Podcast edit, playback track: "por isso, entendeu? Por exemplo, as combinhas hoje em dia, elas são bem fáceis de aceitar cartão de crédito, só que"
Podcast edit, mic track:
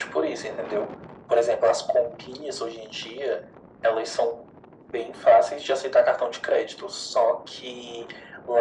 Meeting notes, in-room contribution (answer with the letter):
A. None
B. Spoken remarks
A